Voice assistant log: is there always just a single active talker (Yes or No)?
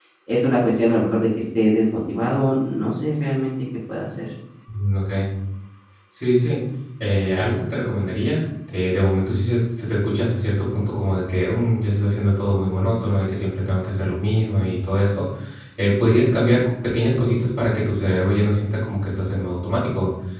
Yes